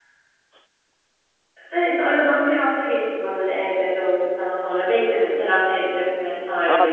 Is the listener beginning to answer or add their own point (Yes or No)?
Yes